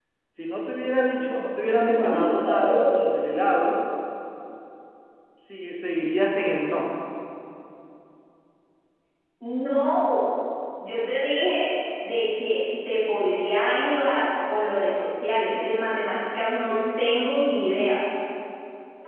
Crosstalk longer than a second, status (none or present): present